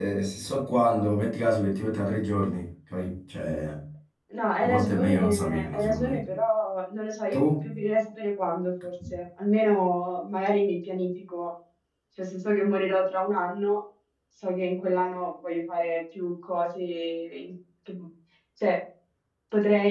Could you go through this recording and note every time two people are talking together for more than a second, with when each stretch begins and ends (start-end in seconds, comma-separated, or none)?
4.7-6.2